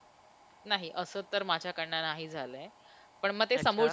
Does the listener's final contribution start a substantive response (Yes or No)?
No